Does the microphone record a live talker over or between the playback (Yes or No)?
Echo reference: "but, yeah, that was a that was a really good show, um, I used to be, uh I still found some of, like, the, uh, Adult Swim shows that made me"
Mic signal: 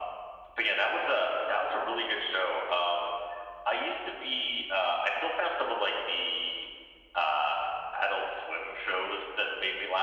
No